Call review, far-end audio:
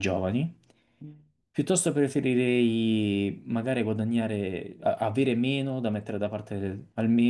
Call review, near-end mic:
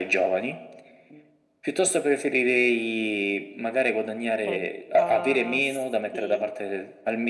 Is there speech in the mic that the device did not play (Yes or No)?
Yes